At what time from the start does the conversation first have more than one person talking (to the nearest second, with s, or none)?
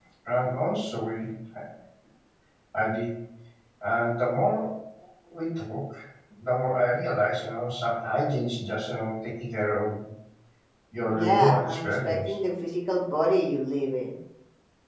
11 s